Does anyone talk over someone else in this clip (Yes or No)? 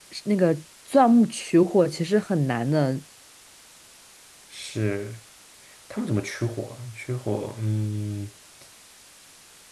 No